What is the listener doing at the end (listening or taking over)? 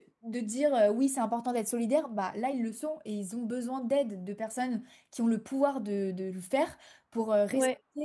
listening